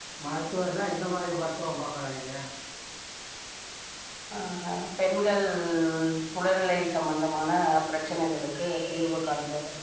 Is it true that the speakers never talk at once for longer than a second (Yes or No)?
Yes